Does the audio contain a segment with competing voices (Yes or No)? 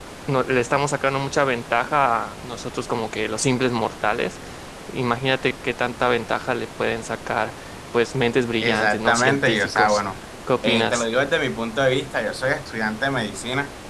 Yes